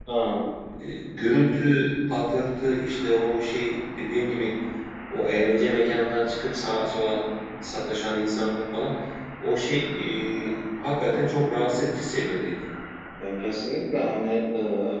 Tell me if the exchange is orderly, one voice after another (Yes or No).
Yes